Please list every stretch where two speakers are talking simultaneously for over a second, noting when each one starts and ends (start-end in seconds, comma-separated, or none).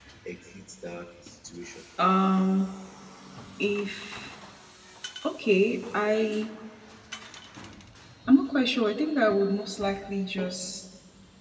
none